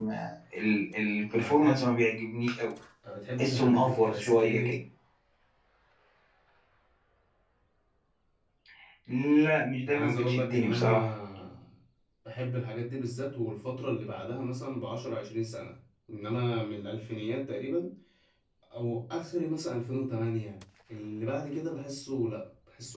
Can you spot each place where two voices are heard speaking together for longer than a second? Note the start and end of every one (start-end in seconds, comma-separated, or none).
3.4-4.8, 9.9-11.1